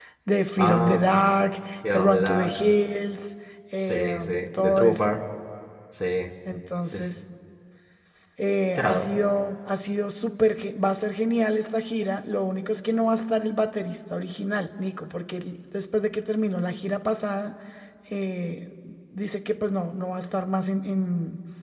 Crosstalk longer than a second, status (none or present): present